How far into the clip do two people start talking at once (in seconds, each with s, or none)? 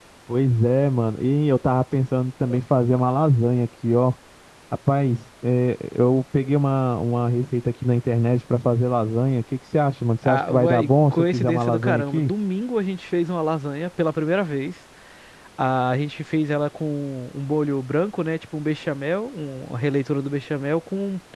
10.2 s